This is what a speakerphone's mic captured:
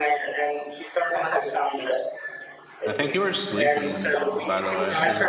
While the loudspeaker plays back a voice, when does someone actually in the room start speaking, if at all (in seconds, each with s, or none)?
2.9 s